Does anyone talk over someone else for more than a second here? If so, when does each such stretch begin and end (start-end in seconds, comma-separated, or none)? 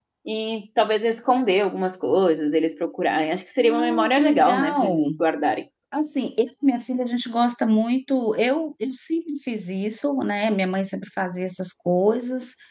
3.6-5.0